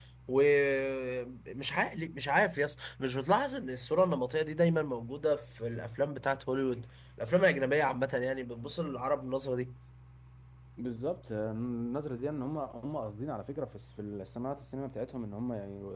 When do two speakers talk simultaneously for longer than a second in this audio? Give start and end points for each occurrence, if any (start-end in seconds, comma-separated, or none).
none